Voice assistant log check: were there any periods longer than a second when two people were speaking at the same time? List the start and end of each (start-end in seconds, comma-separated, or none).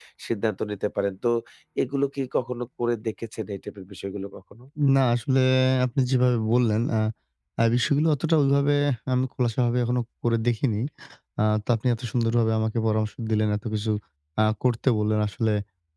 none